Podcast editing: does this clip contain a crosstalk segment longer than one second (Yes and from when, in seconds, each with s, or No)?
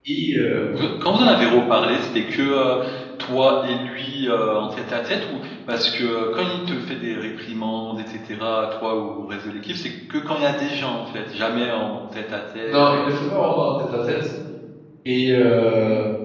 No